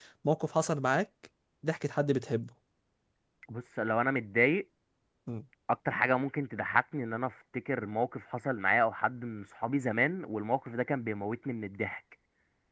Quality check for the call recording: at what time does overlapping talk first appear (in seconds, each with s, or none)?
none